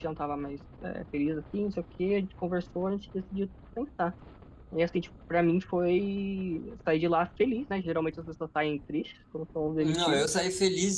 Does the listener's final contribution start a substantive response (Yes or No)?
Yes